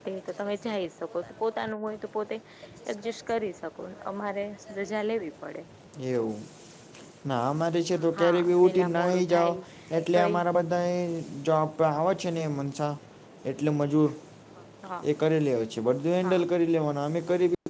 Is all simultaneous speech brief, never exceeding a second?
No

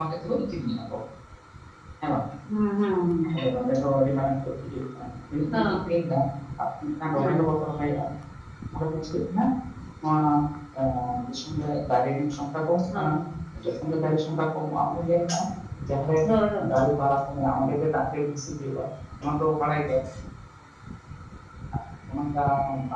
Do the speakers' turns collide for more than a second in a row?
No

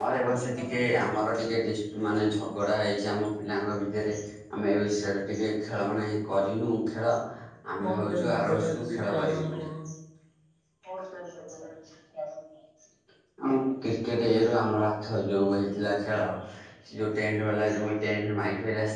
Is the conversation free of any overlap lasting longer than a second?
No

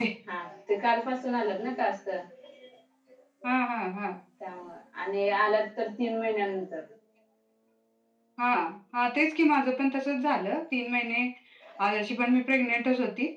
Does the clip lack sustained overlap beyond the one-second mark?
Yes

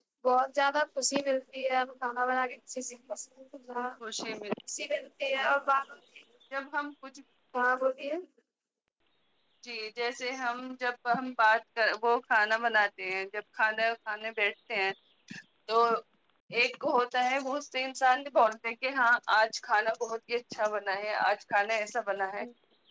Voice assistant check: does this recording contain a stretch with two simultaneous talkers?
No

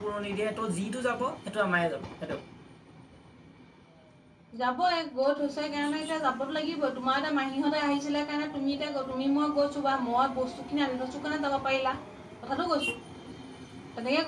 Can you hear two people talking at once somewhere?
No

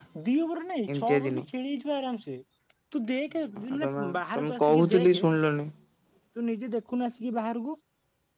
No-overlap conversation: No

